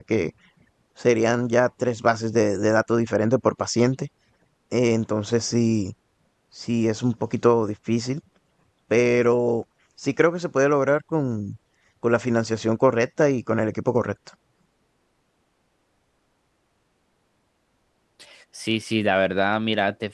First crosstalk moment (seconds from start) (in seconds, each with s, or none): none